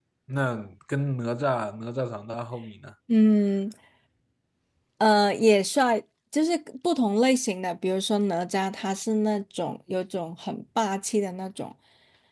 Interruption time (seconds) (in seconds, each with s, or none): none